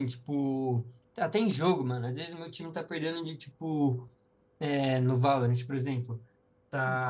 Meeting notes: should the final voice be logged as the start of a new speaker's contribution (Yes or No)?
No